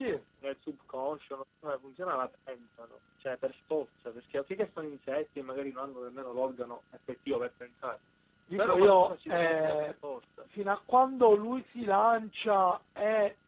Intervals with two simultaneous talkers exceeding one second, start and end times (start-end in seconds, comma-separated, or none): 8.6-9.9